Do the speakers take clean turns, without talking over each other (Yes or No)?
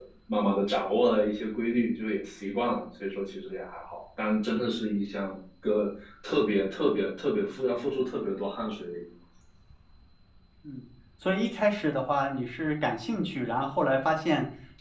Yes